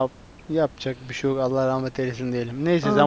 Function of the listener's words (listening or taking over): listening